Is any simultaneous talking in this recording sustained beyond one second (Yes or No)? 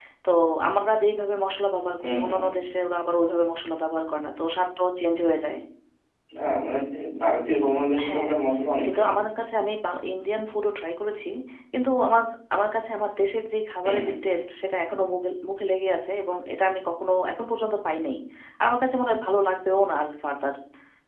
No